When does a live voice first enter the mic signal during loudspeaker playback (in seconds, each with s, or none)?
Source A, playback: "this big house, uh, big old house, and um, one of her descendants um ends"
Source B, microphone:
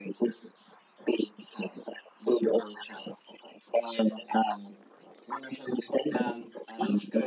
6.1 s